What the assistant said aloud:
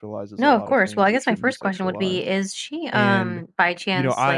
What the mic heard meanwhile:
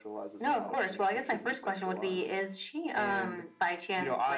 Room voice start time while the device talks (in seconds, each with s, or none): none